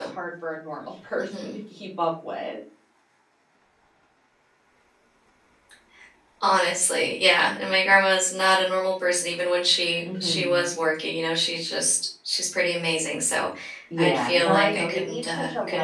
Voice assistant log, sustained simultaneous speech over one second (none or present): present